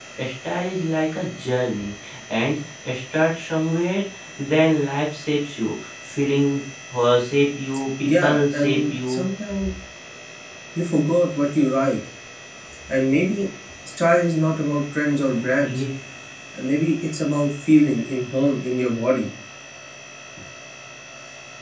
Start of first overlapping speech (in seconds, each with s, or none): 8.0 s